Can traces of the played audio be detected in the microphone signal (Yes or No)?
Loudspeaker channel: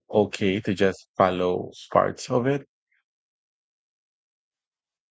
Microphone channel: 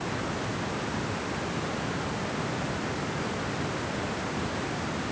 No